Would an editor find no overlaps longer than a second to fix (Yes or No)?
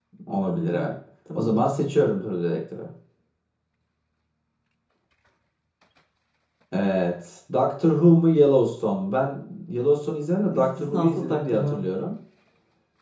No